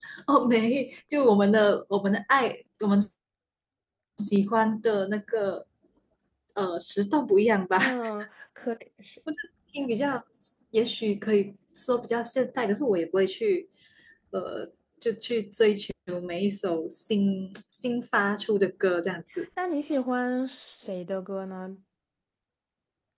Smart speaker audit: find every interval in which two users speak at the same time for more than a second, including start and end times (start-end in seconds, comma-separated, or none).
none